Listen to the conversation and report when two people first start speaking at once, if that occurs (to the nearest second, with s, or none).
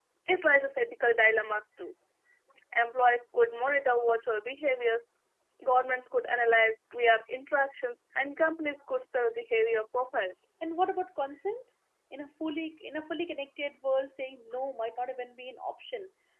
none